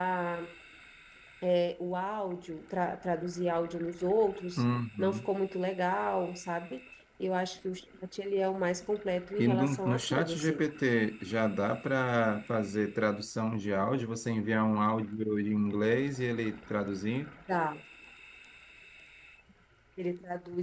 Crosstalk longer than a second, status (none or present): present